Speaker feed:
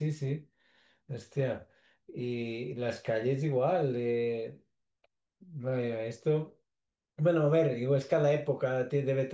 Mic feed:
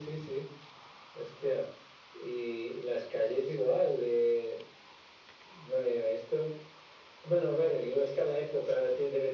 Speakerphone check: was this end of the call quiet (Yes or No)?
Yes